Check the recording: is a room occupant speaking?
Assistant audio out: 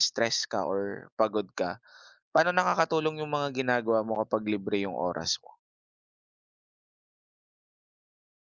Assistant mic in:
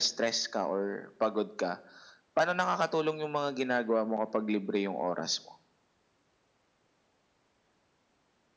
No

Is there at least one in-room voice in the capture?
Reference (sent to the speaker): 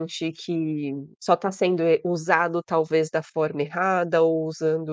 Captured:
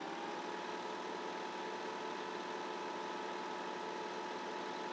No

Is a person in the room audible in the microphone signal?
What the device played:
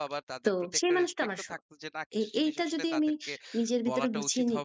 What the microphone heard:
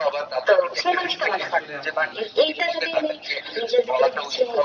Yes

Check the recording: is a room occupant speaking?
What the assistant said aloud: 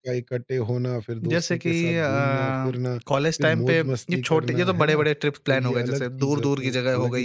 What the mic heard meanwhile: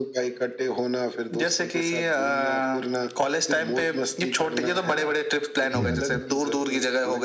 Yes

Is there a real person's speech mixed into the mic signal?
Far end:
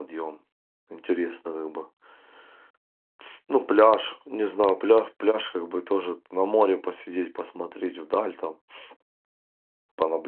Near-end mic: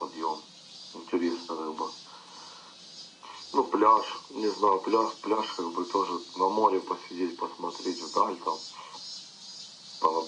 No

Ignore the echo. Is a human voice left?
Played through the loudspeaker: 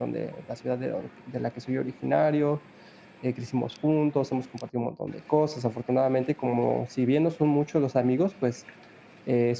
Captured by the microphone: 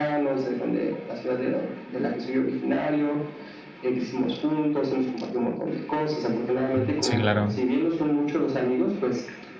Yes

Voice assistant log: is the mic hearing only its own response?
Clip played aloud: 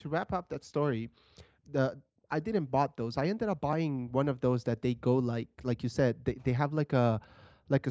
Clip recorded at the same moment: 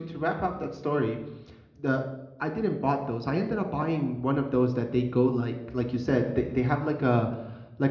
Yes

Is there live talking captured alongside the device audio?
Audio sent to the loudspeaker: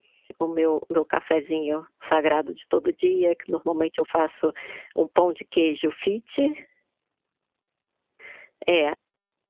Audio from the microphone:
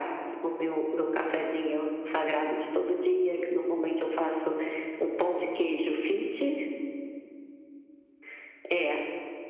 No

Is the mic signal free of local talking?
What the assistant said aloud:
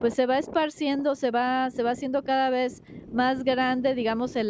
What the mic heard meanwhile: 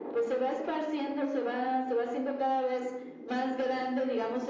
Yes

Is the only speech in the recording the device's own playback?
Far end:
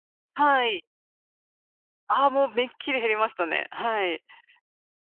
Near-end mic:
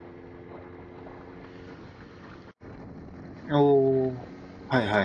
No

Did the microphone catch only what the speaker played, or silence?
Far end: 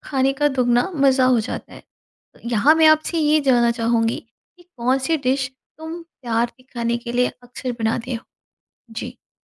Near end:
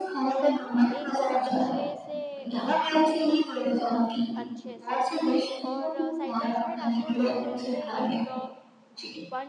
No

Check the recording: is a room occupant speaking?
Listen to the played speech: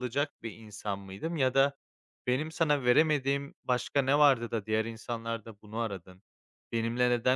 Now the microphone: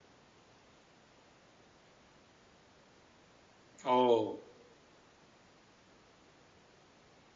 Yes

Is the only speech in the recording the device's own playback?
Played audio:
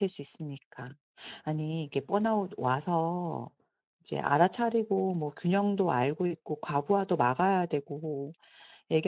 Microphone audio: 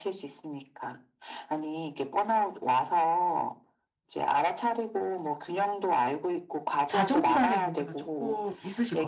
No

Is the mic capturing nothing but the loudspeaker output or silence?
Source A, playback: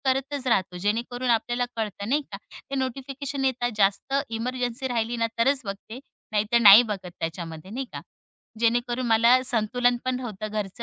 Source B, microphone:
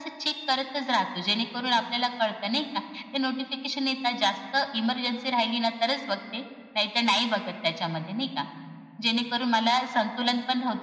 Yes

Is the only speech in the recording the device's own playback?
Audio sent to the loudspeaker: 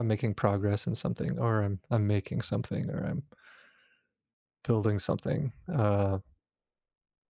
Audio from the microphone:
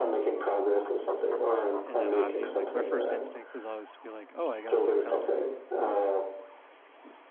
No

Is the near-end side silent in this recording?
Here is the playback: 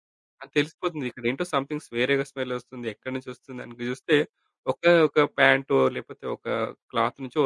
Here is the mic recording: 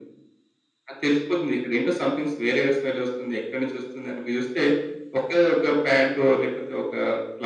Yes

